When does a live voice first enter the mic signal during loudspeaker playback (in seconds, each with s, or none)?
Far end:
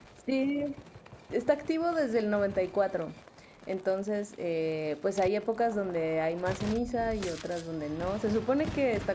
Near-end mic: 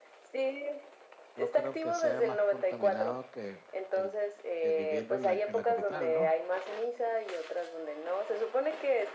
1.4 s